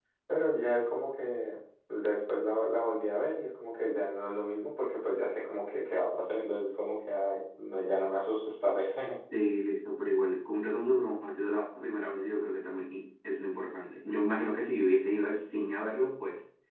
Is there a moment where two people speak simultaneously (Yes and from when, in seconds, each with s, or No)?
No